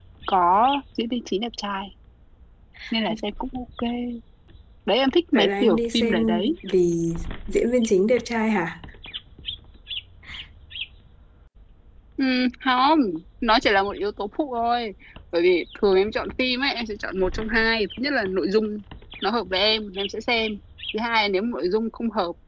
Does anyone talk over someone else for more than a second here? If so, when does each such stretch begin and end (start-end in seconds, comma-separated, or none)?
5.3-6.6